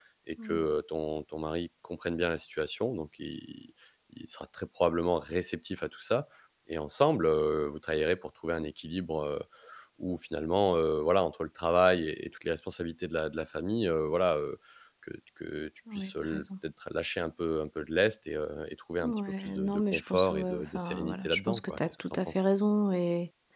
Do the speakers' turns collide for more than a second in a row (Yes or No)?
Yes